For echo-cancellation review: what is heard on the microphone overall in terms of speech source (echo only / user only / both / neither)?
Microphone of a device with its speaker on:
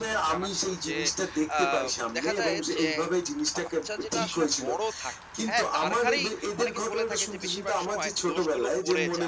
both